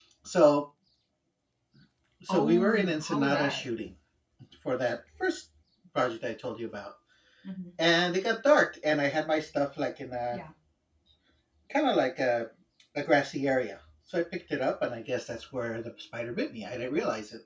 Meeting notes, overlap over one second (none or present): present